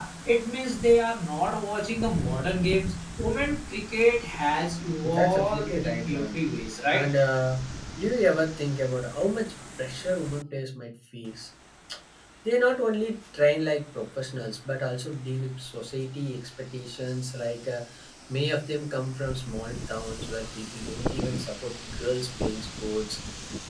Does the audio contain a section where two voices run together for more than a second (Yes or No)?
Yes